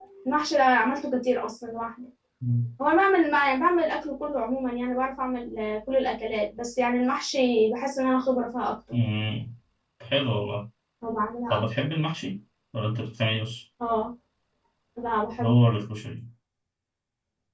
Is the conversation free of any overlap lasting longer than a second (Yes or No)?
Yes